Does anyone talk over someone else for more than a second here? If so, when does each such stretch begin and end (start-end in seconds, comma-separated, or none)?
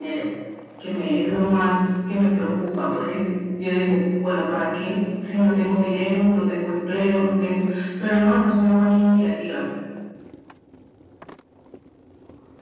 none